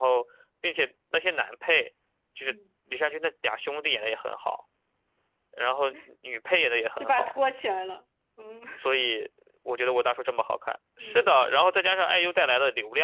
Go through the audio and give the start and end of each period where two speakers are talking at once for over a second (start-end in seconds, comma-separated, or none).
none